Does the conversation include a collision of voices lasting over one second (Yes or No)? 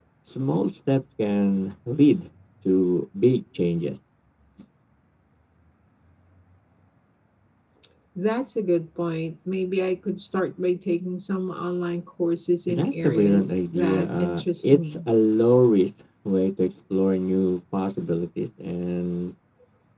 Yes